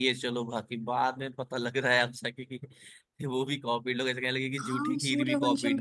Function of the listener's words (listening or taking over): taking over